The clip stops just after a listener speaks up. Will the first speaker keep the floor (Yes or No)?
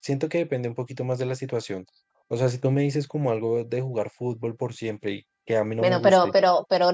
No